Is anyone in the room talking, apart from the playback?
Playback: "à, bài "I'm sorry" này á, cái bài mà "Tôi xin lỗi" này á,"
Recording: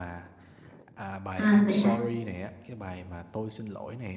Yes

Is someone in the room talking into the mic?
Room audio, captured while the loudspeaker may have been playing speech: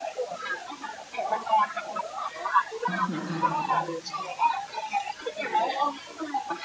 Yes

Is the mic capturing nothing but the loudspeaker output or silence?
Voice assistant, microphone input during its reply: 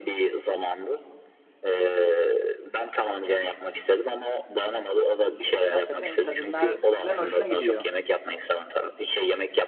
No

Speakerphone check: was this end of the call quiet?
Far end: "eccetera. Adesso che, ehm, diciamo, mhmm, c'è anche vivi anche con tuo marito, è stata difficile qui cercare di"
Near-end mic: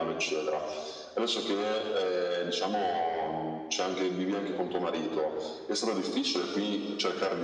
Yes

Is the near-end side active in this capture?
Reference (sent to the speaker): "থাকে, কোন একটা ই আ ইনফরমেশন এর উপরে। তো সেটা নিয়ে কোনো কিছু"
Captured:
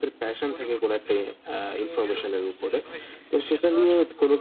Yes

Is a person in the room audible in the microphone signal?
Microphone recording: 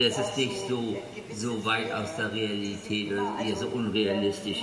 Yes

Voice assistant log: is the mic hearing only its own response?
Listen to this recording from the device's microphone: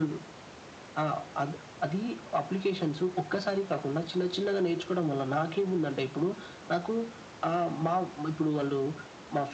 Yes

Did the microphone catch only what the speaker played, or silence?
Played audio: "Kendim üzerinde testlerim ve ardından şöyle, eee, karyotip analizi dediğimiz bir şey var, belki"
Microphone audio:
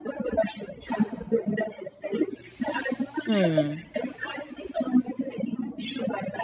No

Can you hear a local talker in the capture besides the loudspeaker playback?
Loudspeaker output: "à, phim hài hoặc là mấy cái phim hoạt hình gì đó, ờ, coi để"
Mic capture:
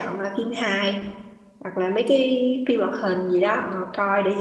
No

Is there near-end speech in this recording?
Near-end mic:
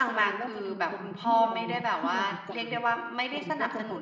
Yes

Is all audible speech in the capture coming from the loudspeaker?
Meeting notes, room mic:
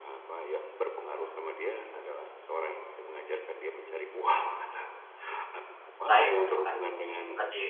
No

